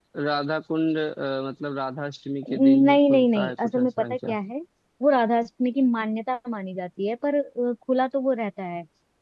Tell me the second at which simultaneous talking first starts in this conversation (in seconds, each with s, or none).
2.4 s